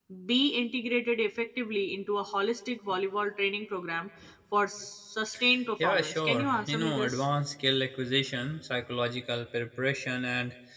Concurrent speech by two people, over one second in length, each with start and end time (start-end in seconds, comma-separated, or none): 5.8-7.2